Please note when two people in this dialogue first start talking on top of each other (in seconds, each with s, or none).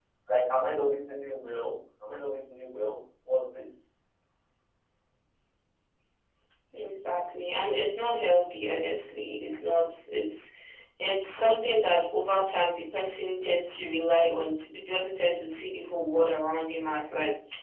none